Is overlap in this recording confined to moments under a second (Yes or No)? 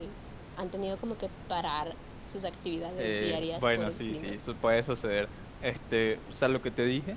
No